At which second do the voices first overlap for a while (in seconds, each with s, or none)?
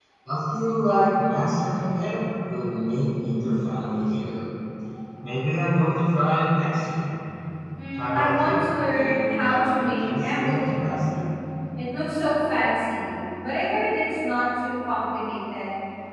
8.0 s